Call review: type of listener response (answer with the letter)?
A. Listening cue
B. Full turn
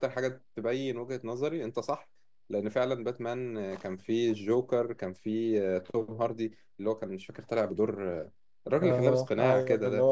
B